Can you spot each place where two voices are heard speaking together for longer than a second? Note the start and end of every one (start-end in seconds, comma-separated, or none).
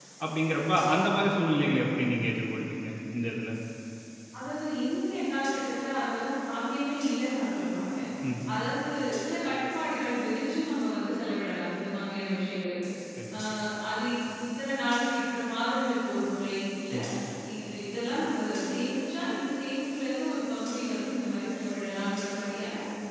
none